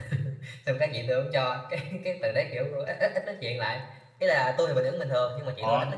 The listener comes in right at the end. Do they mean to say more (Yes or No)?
No